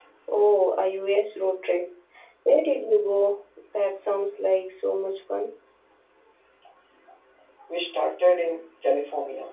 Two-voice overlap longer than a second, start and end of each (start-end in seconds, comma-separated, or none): none